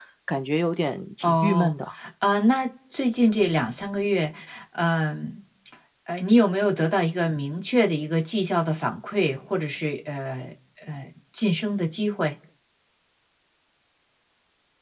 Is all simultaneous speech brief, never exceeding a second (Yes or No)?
Yes